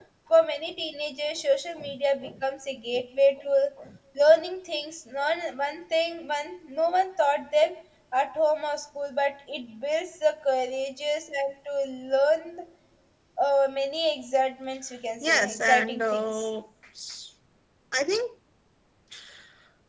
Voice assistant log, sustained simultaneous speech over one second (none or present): present